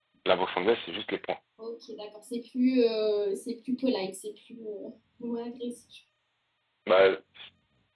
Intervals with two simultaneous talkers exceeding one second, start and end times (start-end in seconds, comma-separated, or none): none